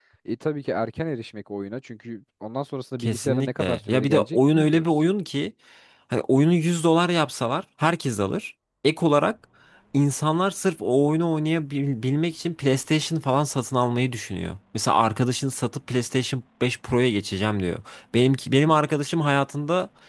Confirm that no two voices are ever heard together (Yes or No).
No